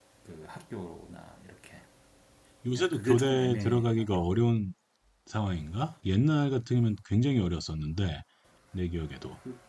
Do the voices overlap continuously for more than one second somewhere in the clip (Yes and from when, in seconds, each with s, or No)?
Yes, from 2.8 s